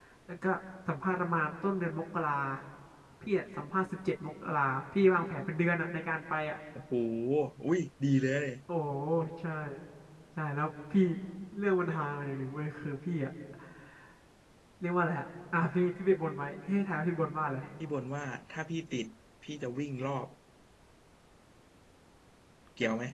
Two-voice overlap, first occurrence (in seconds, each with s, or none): none